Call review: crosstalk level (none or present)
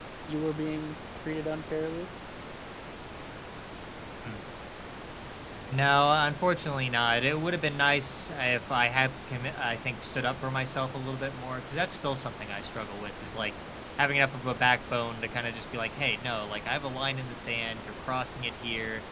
none